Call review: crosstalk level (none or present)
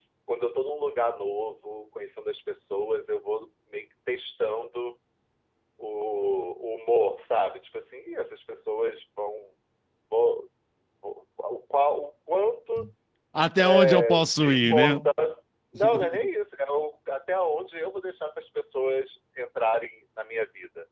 present